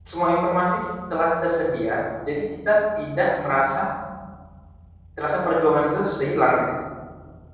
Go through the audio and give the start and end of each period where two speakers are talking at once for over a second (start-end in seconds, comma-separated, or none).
none